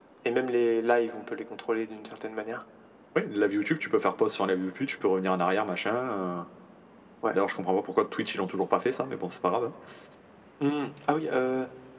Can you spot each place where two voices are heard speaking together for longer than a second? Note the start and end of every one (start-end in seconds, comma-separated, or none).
none